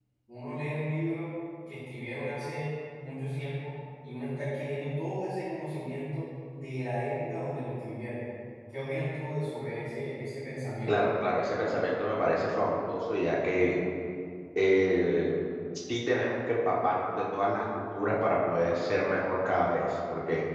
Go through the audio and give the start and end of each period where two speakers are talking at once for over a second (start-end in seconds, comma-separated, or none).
none